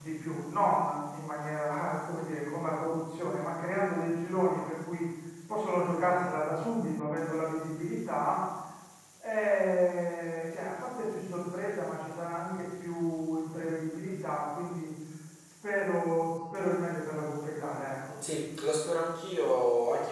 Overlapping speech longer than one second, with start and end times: none

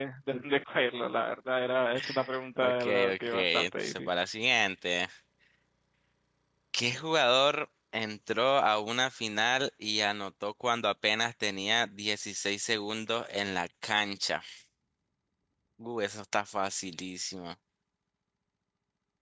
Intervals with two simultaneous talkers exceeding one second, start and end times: 2.6-4.1

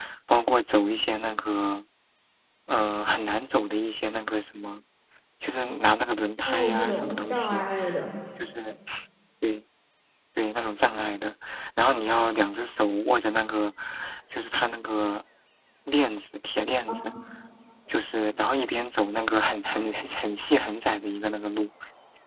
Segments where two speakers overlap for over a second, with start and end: 6.5-7.7

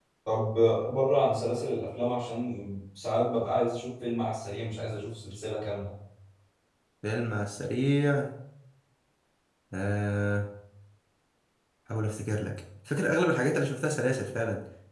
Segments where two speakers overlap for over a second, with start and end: none

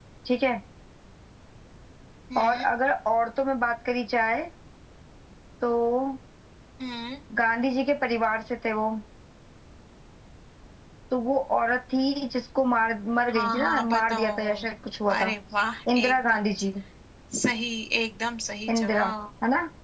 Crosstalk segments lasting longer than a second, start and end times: 13.3-14.7

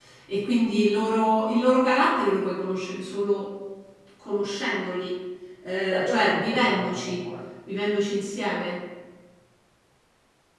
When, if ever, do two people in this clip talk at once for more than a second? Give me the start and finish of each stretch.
5.9-7.2

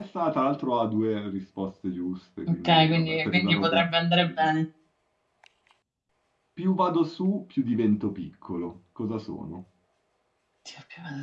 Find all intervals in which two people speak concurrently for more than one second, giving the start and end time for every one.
2.5-3.8

